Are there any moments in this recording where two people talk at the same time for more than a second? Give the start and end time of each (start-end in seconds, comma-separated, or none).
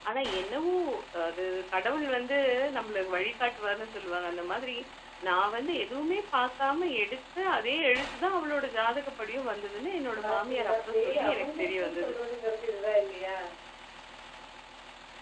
10.2-12.1